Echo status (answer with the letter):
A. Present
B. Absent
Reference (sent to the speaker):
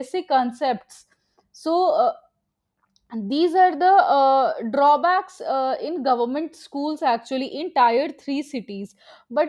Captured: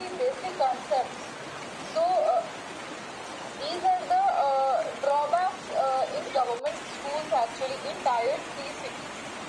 A